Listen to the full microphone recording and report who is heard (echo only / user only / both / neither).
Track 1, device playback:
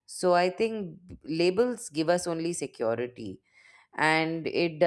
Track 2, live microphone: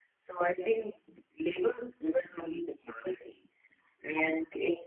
echo only